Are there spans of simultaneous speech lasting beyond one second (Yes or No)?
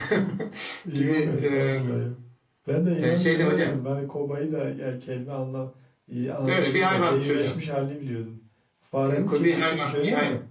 Yes